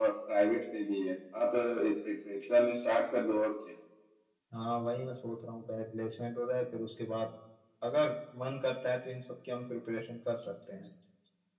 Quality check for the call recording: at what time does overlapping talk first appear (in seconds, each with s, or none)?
none